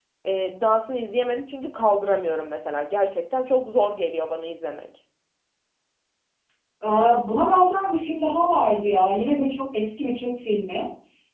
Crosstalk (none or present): none